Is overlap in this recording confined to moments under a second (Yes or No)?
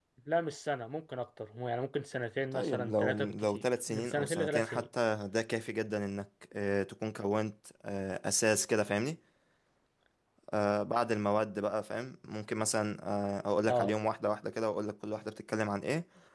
No